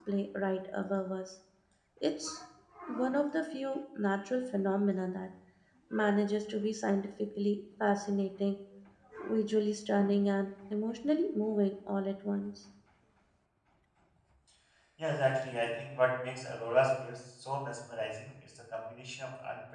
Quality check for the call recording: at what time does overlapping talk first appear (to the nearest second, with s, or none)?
none